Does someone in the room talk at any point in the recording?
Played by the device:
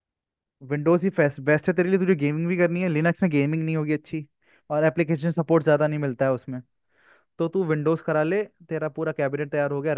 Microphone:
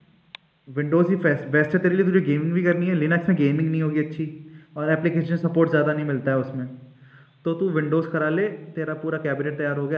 No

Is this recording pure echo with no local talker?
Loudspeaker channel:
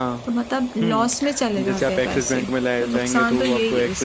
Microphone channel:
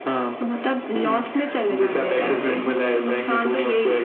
Yes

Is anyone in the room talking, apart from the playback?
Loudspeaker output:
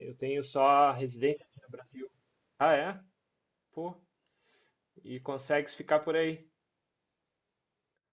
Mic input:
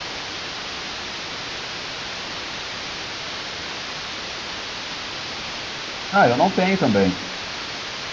Yes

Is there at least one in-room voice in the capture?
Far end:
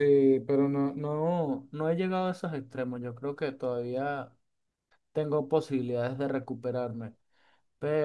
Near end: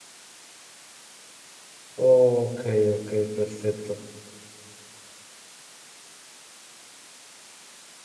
Yes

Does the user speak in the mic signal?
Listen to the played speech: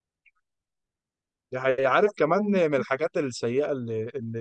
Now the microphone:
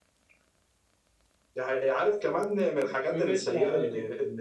Yes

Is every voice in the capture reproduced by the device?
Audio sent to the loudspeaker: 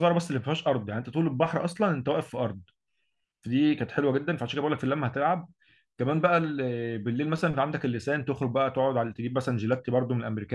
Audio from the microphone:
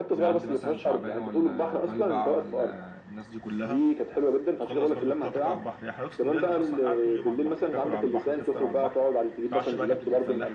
No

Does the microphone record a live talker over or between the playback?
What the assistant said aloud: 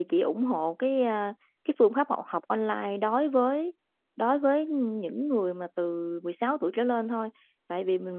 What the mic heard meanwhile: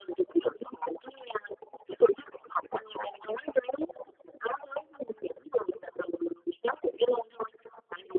No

